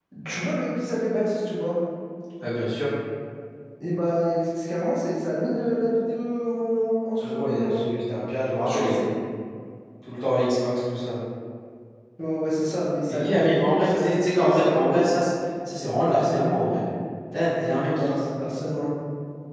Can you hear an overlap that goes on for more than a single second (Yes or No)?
Yes